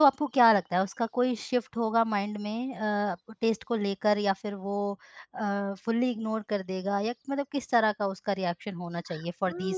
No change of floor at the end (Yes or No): No